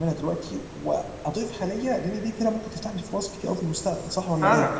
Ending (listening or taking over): taking over